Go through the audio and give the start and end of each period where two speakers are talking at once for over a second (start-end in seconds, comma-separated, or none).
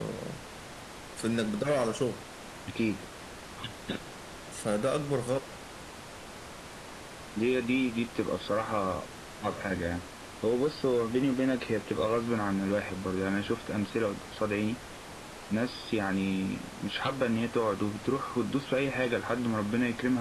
none